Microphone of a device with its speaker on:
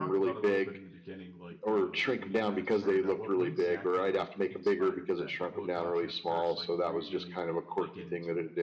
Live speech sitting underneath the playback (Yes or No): Yes